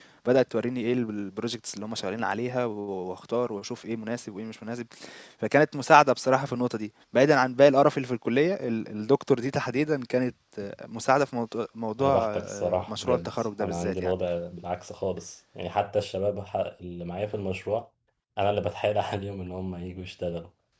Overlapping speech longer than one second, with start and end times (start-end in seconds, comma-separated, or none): 12.0-14.1